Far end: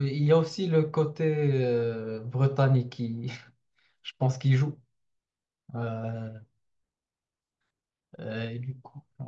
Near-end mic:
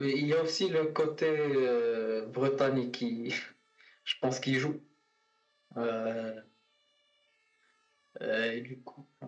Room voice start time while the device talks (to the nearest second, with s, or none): none